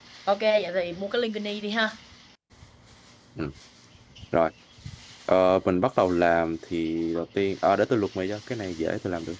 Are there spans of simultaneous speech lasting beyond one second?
No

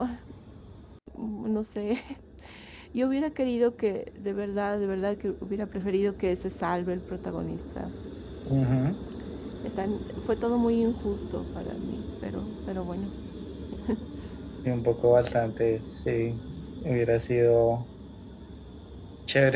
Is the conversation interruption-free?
Yes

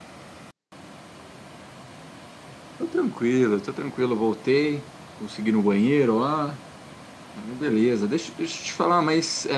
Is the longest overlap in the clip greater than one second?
No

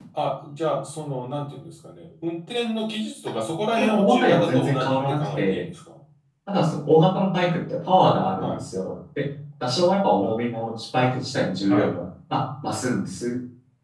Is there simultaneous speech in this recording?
Yes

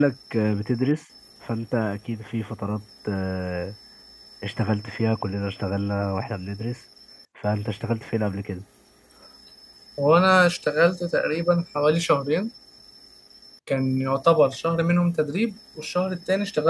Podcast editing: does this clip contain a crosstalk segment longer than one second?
No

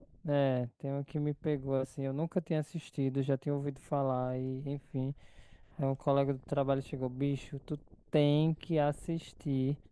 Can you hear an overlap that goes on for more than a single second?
No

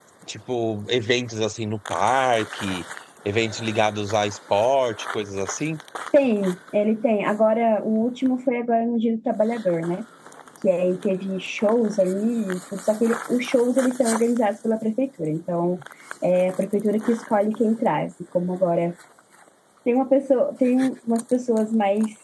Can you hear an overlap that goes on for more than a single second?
No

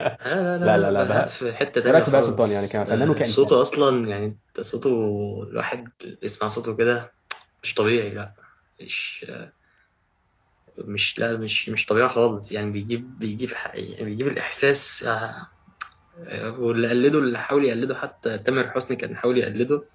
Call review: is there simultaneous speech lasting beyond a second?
Yes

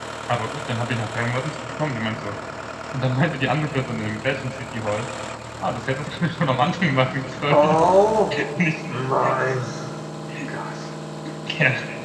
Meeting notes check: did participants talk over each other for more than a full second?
No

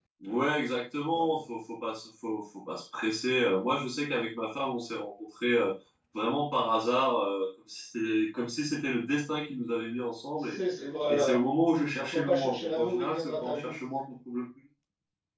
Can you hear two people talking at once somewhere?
Yes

